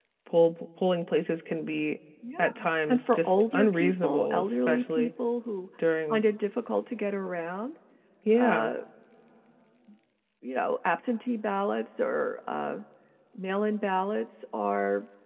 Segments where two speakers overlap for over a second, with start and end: 2.9-5.1

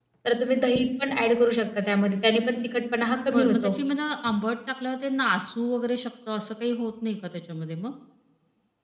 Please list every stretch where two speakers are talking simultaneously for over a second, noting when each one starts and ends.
none

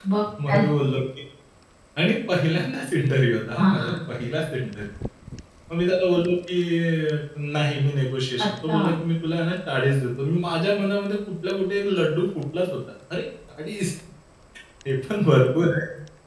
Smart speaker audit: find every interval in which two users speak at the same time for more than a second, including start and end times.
none

